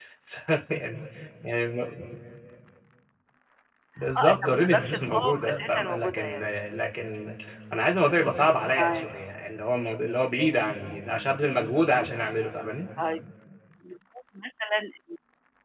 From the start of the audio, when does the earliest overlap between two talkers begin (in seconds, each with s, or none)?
4.2 s